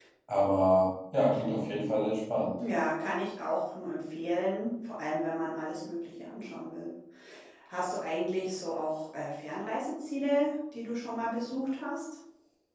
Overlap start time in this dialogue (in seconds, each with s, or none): none